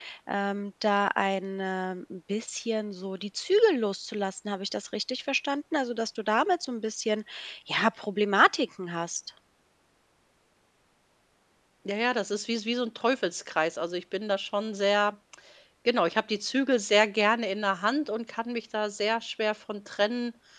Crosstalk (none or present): none